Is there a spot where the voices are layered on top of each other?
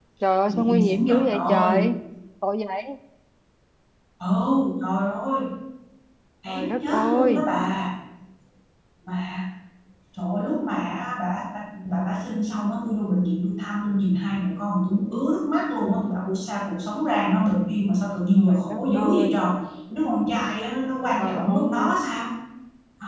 Yes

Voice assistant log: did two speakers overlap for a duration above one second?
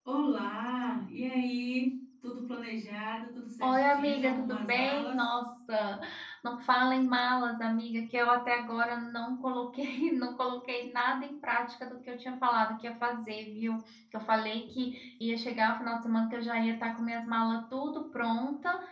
Yes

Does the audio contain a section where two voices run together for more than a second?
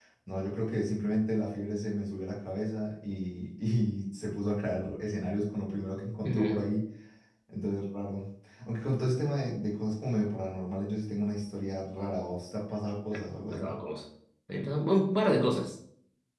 No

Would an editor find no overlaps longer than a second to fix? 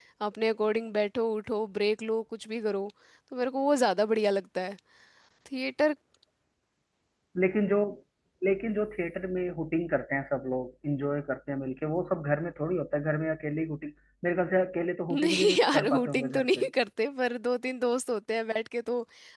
No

